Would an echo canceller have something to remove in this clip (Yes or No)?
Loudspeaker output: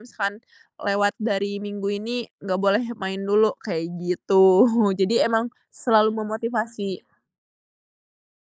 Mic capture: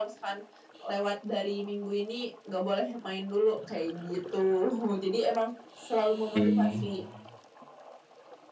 Yes